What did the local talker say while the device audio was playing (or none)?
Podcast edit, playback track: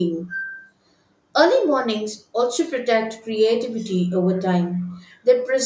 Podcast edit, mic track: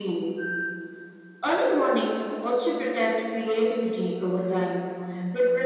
none